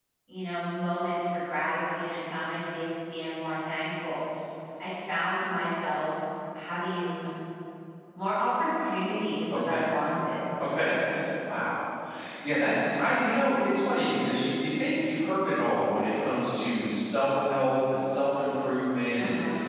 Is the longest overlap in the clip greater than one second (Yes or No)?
No